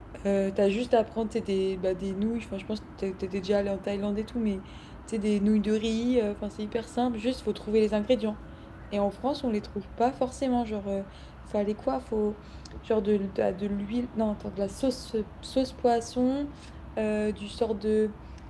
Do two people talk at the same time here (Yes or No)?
No